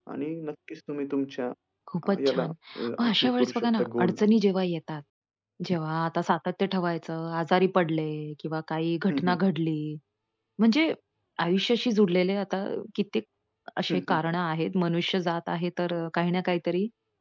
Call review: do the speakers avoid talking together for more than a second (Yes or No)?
No